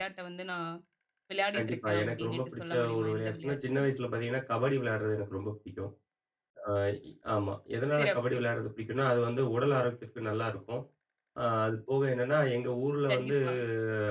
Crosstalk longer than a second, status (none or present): present